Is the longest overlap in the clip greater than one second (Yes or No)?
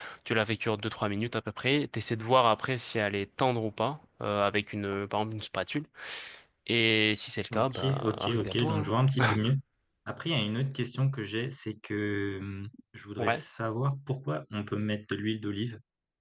Yes